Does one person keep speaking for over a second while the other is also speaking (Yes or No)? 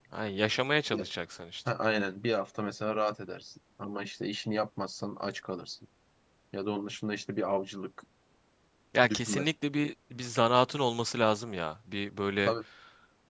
No